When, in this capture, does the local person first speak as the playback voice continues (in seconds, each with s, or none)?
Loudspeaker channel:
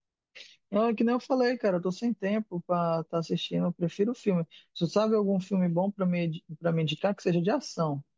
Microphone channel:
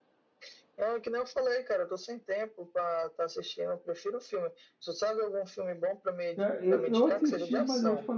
6.3 s